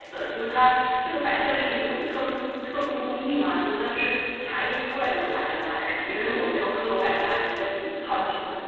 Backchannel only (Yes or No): No